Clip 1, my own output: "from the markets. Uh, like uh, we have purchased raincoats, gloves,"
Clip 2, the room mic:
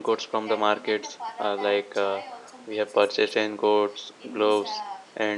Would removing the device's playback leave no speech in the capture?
No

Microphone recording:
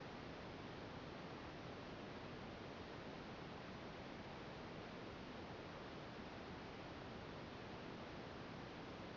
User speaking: No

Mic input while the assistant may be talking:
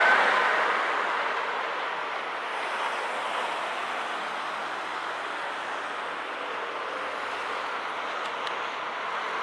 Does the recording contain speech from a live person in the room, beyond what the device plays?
No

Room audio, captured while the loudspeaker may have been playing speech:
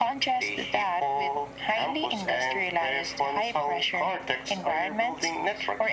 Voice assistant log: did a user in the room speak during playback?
No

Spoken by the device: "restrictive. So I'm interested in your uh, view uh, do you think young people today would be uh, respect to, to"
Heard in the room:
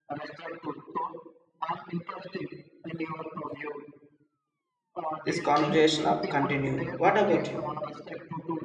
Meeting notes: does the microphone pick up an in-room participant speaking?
Yes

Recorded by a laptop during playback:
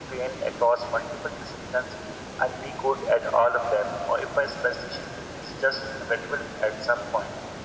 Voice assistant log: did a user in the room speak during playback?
No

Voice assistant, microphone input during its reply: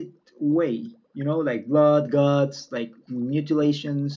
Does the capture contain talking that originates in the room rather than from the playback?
No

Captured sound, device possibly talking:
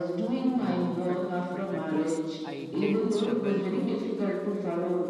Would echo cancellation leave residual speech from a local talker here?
Yes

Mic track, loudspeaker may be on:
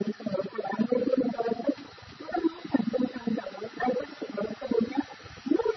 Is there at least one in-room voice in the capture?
No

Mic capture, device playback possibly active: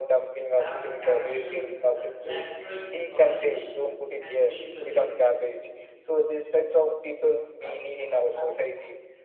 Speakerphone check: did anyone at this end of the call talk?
Yes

